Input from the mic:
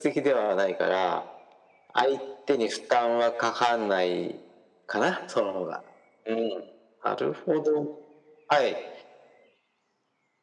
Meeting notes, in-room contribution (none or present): none